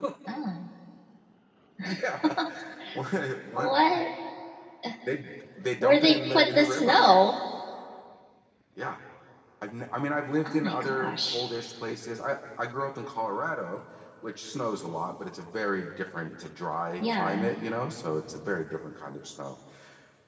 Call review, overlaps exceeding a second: present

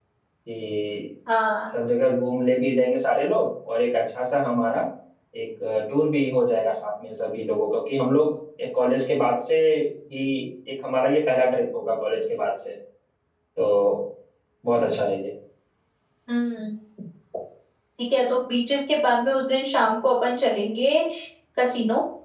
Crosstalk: none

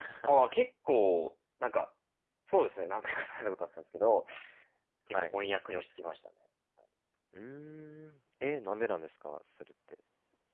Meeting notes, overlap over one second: none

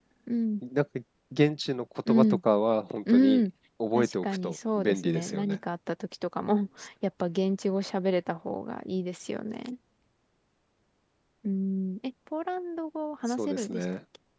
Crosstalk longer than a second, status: present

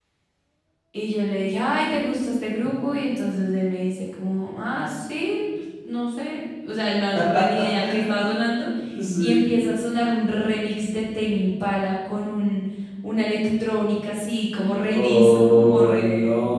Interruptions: present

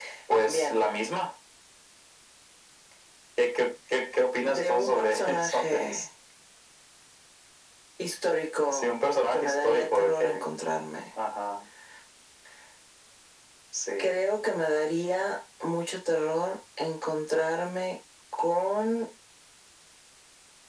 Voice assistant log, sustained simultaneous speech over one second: present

